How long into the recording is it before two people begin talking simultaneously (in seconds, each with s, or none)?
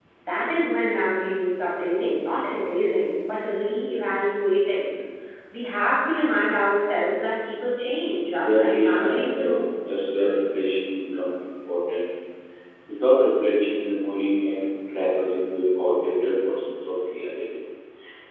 8.2 s